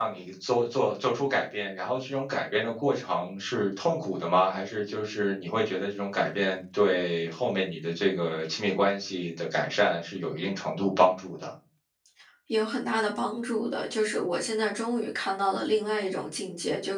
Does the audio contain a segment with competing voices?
No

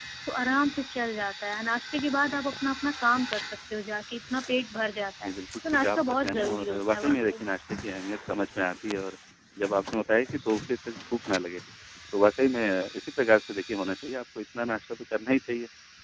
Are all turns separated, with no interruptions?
No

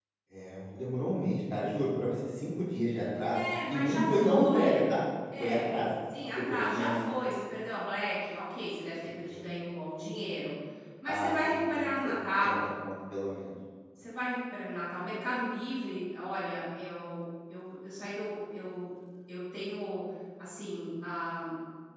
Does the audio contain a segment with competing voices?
Yes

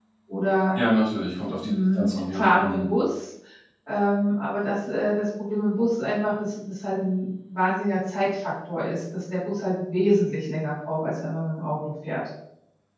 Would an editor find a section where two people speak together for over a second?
Yes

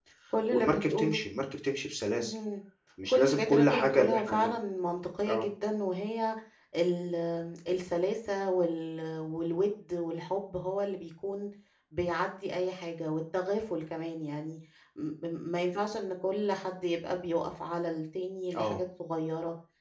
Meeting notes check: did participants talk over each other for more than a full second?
Yes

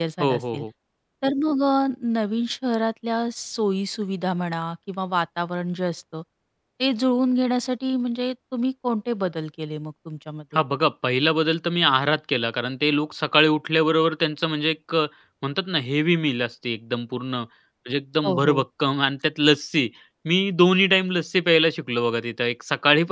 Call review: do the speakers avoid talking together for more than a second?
Yes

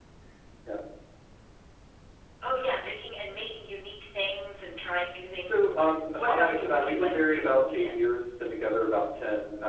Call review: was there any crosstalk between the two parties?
Yes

